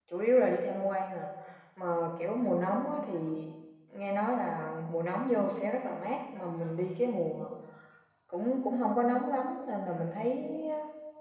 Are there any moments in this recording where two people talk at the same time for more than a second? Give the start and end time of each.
none

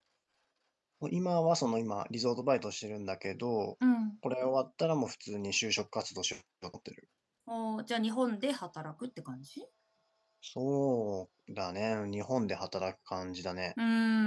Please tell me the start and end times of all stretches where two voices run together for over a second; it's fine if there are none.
none

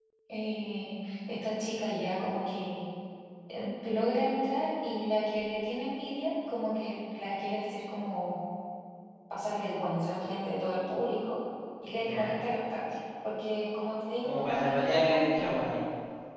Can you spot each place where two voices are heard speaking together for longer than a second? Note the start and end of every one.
14.2-15.6

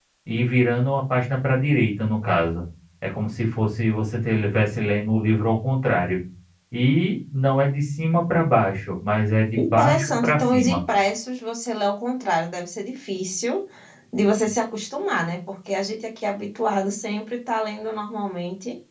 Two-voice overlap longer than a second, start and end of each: 9.6-10.8

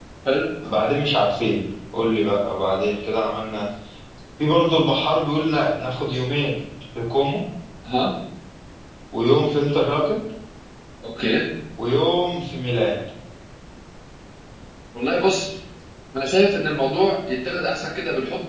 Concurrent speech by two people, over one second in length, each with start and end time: none

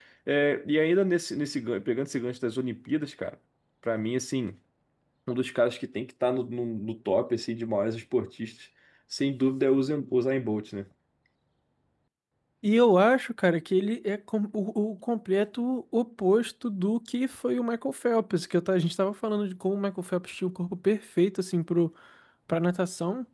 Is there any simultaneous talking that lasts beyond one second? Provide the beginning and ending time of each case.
none

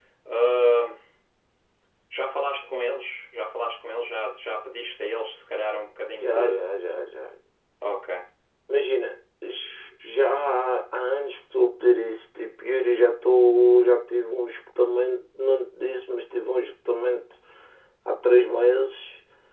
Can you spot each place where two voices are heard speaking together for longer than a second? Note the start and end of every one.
none

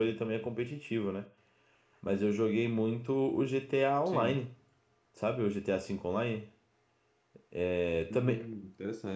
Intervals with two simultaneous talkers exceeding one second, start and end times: none

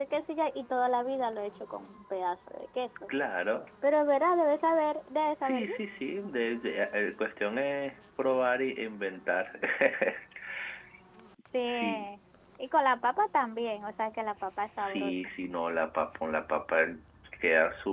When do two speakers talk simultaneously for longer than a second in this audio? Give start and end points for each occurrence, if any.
none

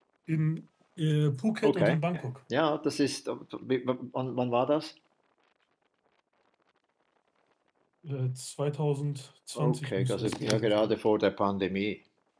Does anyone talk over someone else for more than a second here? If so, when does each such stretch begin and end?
9.6-10.9

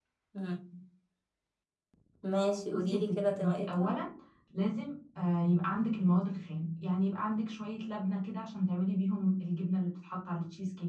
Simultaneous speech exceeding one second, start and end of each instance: 2.7-3.9

